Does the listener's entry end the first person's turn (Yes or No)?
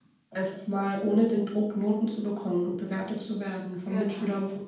No